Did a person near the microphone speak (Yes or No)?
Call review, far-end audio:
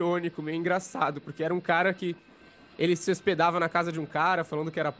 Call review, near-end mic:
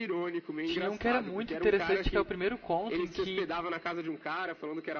Yes